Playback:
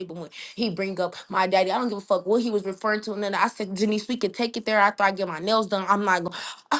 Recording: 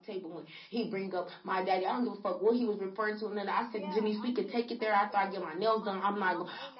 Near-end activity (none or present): present